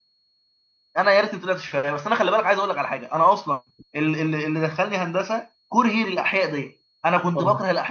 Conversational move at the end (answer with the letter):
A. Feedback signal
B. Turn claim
A